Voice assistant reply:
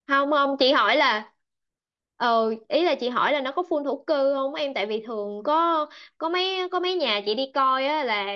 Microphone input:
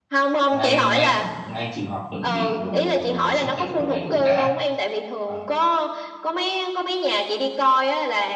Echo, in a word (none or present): present